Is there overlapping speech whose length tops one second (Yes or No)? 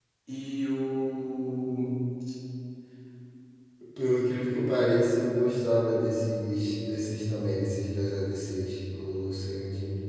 No